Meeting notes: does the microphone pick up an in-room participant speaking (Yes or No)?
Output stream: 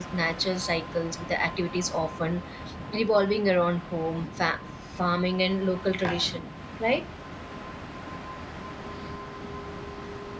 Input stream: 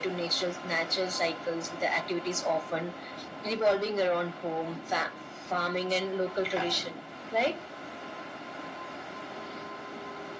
No